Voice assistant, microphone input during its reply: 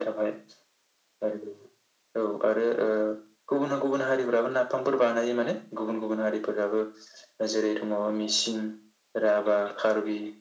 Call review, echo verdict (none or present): present